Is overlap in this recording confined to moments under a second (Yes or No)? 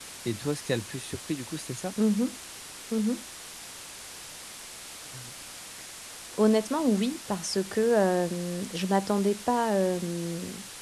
Yes